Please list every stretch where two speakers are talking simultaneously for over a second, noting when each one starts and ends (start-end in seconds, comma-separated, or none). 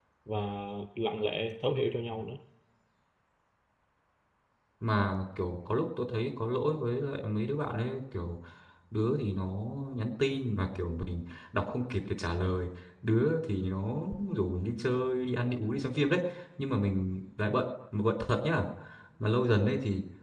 none